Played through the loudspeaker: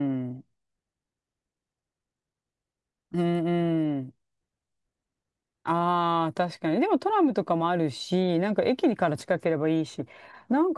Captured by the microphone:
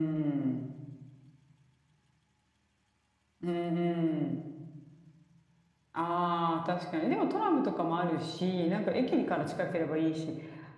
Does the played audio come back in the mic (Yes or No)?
Yes